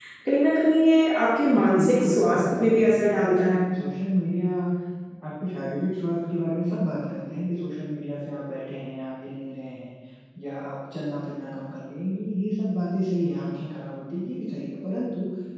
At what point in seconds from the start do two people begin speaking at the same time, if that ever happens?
1.6 s

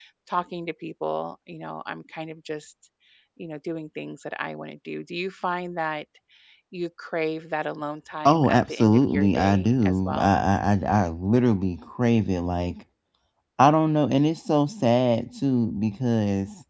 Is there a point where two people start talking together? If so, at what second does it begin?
8.2 s

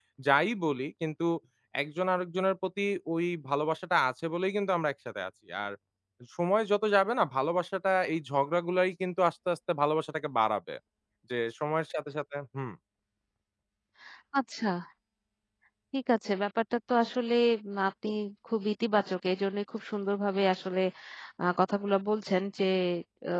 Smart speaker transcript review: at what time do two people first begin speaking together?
none

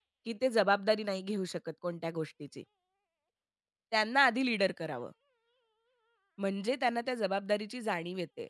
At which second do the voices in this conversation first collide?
none

